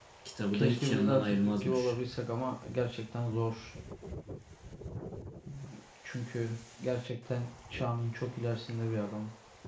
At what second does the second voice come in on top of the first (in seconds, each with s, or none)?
0.5 s